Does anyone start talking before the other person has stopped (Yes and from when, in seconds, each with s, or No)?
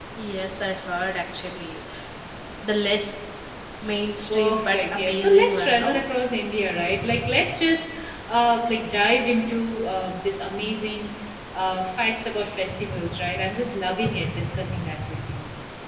Yes, from 4.3 s